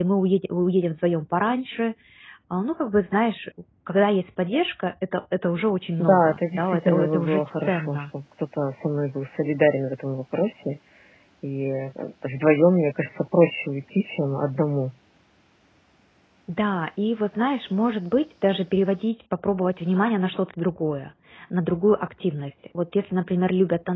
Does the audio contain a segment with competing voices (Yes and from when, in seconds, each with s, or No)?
Yes, from 6.0 s